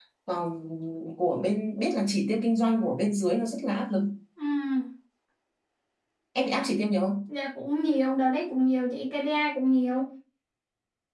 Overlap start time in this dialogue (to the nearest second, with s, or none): none